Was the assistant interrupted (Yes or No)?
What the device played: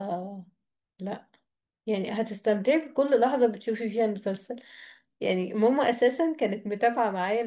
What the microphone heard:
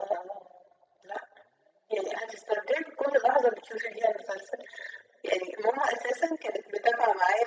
No